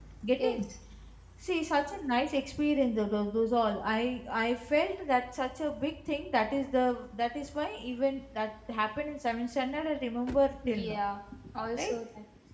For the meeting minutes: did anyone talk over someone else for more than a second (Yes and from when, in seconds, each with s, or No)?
No